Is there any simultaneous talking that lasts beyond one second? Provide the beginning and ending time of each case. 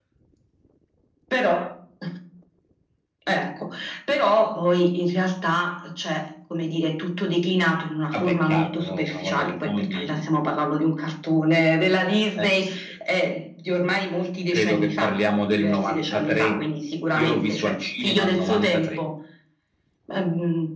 8.1-10.2, 14.5-16.6, 17.2-19.0

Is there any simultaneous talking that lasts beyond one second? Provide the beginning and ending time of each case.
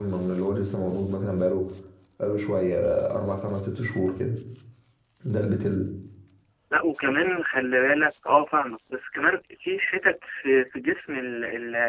none

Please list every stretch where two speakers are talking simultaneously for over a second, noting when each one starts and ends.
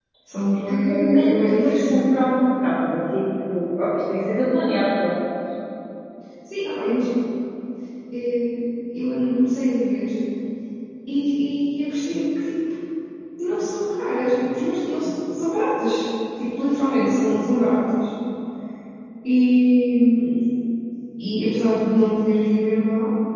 0.5-2.1

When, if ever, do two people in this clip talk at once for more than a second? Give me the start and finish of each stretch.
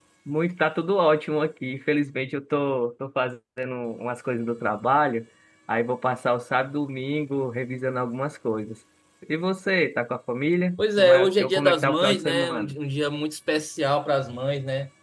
10.8-12.7

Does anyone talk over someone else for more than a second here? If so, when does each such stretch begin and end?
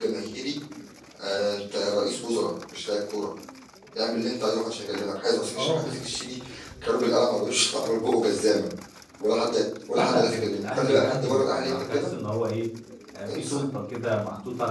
9.9-12.1

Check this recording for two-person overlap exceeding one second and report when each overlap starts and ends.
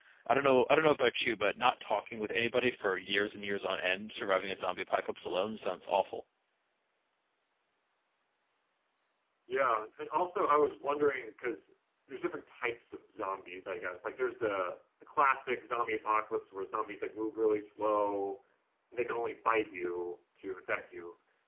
none

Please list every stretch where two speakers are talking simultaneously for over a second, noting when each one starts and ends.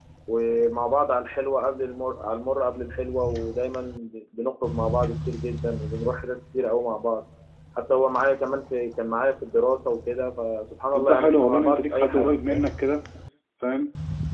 10.9-12.7

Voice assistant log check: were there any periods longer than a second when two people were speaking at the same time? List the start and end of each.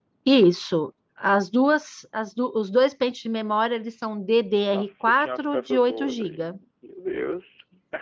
4.7-6.6

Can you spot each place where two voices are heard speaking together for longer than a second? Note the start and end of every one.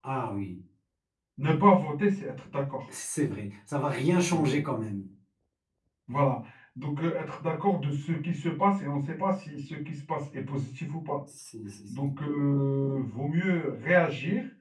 none

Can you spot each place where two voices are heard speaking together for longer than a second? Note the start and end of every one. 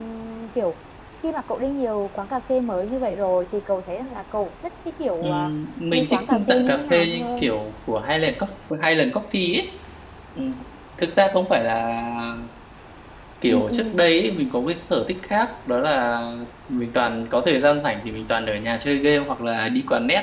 5.9-7.5

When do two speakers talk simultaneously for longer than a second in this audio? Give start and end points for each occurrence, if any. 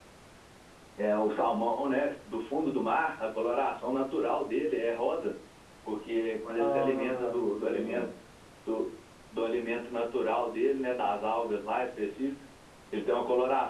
6.6-8.1

